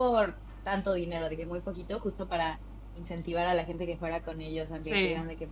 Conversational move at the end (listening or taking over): listening